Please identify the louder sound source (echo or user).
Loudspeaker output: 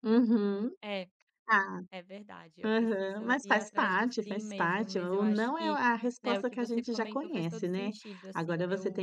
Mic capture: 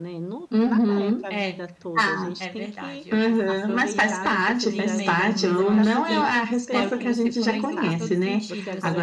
echo